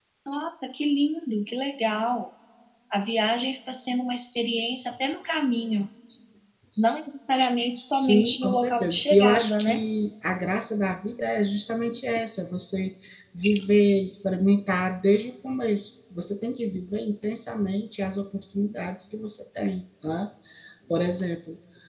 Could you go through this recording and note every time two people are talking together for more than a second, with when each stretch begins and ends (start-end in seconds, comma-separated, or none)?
7.9-9.8